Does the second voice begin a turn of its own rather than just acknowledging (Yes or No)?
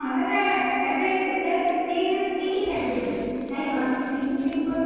No